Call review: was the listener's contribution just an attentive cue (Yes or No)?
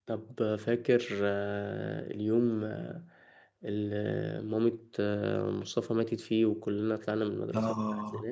No